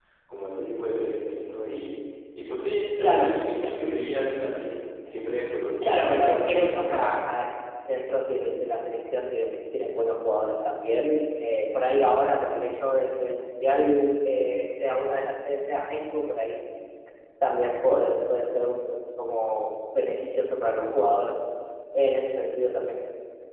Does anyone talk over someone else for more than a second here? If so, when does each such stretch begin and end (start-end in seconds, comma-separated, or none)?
5.8-7.2